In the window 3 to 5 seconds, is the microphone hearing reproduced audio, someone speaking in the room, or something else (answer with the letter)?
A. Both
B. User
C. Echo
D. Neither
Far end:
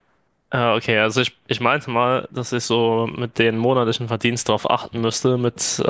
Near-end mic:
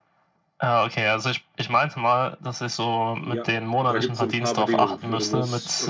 A